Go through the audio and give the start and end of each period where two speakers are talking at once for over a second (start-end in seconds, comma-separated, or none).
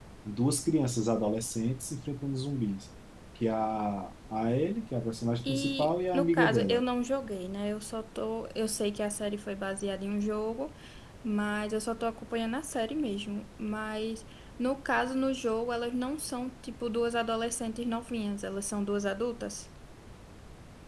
5.4-6.8